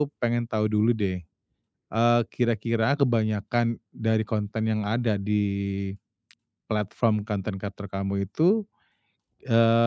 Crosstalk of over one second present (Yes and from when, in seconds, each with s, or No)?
No